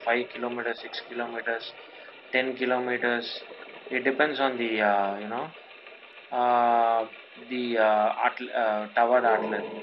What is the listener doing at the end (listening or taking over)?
listening